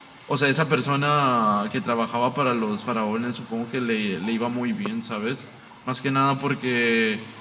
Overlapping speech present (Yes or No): No